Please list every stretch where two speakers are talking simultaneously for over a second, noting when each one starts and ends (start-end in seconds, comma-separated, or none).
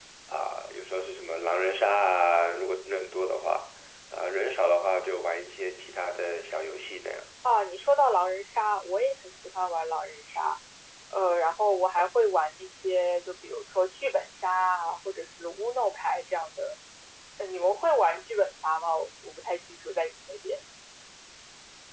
none